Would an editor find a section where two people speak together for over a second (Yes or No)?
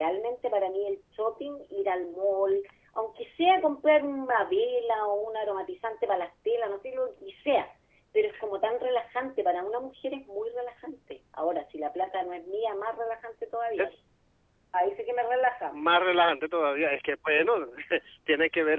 No